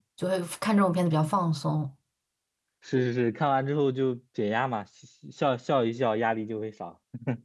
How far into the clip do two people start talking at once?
none

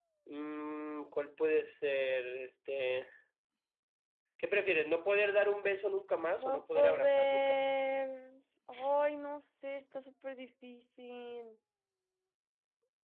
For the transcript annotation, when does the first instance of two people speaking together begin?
6.4 s

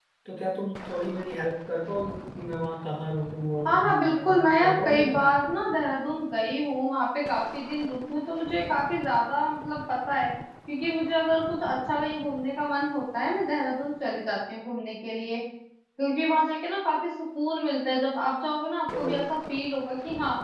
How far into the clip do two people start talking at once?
3.7 s

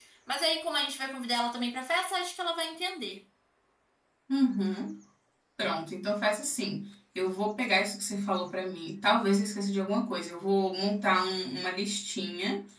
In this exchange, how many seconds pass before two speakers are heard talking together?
none

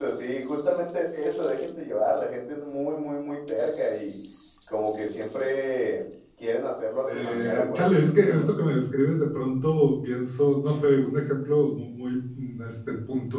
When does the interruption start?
7.1 s

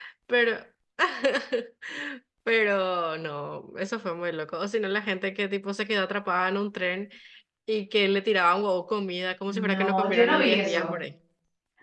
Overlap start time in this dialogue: 9.5 s

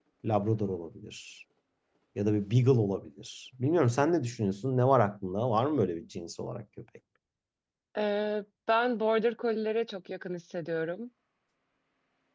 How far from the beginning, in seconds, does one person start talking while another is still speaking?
none

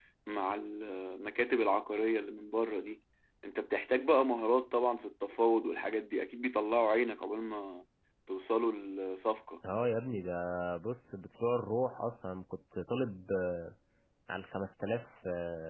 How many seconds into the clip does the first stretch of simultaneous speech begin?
none

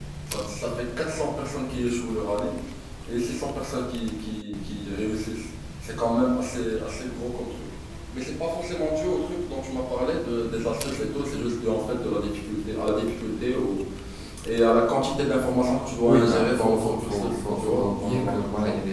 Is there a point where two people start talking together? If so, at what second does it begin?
16.0 s

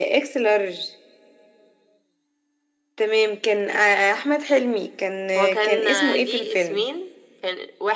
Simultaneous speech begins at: 5.3 s

